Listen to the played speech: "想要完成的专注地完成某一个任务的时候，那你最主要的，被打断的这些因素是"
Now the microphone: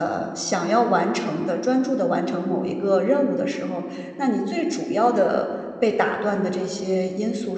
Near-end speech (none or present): none